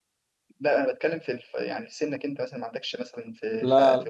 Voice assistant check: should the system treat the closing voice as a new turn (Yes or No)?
Yes